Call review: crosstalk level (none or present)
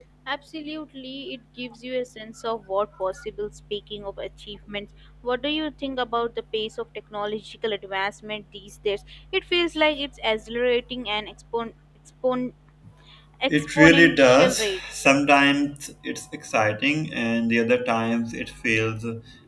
present